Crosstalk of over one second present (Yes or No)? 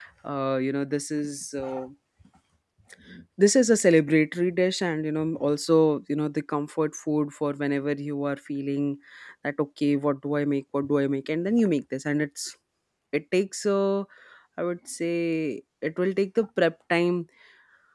No